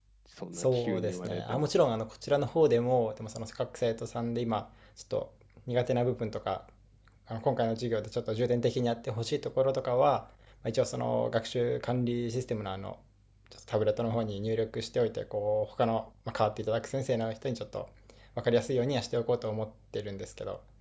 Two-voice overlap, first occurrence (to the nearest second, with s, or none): 1 s